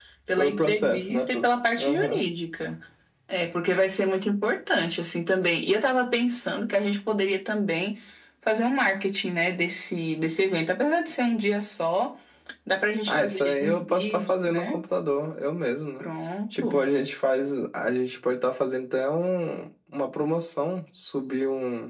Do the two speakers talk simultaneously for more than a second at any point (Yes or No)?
Yes